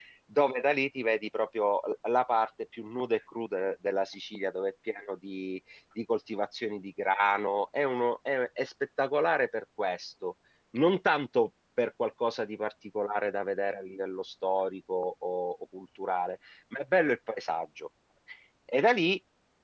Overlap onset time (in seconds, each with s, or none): none